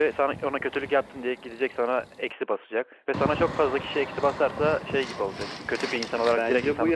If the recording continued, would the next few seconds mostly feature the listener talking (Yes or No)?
Yes